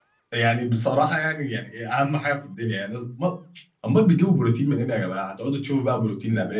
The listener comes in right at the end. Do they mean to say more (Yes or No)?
Yes